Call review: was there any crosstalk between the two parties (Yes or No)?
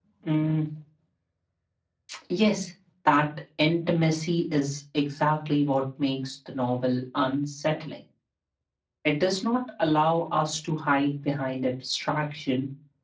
No